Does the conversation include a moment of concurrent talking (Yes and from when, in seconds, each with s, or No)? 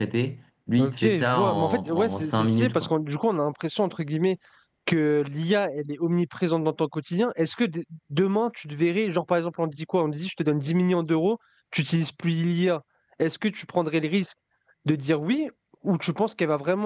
Yes, from 0.8 s